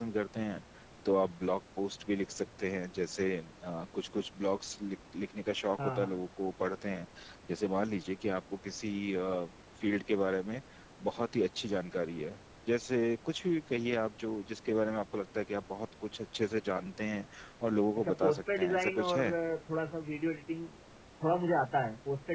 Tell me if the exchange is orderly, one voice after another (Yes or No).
No